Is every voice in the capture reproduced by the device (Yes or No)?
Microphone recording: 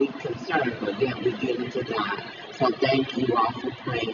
Yes